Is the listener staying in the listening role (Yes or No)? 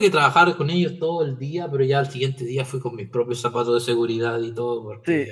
No